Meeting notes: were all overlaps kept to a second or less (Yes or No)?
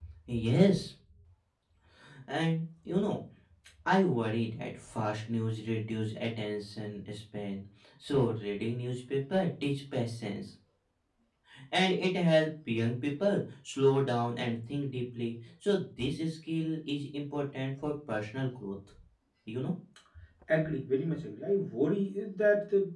Yes